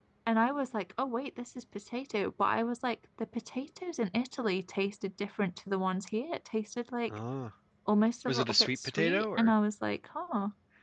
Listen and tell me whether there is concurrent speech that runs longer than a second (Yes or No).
Yes